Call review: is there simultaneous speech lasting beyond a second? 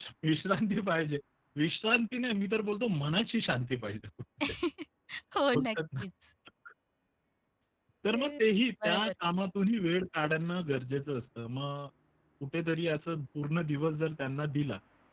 No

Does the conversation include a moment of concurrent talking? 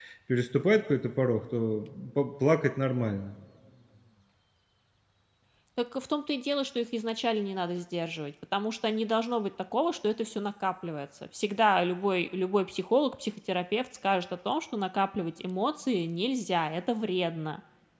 No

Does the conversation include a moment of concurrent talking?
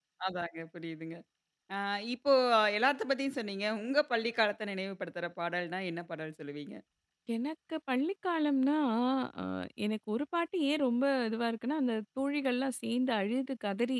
No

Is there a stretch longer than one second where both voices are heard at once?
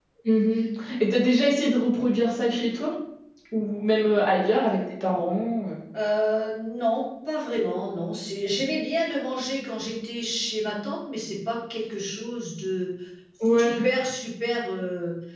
No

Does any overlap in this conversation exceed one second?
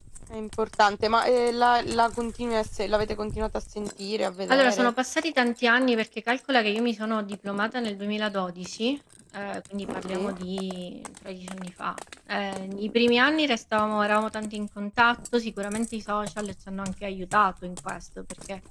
No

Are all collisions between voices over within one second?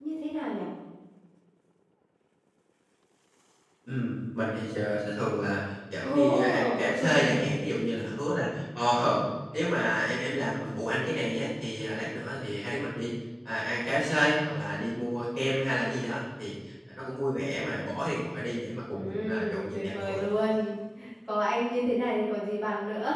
No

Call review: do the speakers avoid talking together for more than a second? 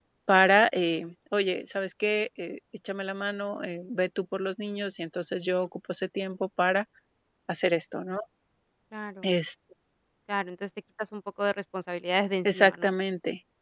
Yes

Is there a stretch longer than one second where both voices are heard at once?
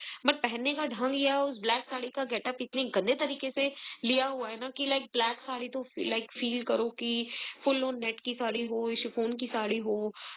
No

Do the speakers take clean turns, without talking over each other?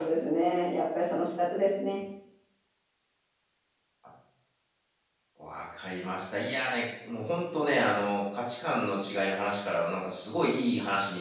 Yes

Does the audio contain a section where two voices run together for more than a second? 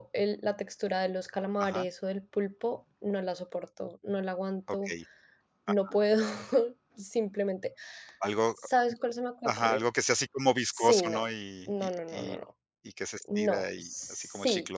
Yes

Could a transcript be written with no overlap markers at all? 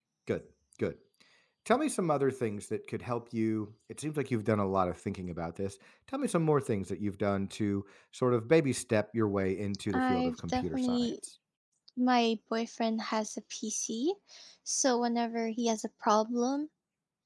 No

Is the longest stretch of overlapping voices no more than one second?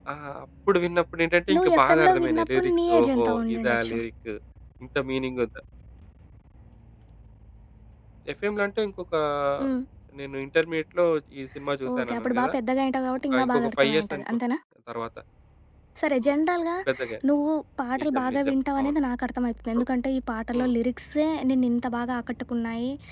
No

